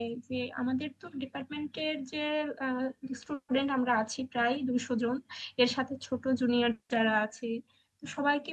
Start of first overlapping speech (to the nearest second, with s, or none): none